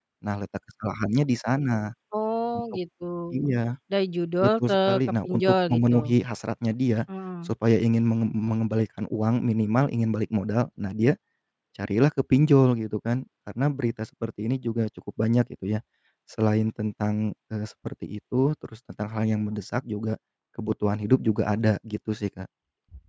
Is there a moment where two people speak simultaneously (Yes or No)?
Yes